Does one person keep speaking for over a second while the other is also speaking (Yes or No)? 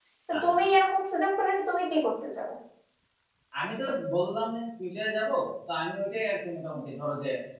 No